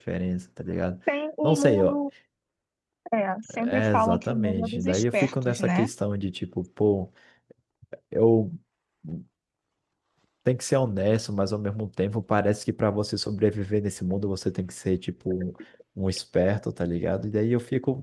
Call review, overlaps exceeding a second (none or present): present